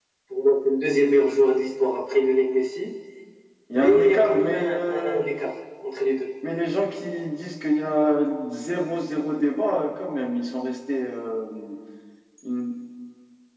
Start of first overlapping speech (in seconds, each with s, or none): 3.7 s